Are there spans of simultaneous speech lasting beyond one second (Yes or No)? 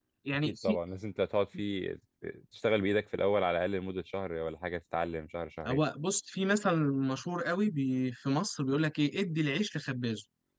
No